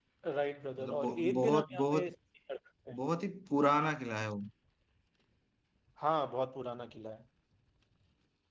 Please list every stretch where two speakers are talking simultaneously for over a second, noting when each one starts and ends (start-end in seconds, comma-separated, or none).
0.8-2.1